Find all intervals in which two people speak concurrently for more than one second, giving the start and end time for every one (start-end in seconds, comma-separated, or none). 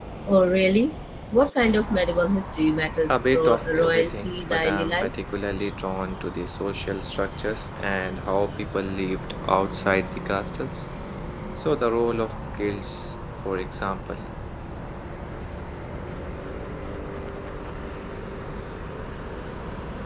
3.1-5.1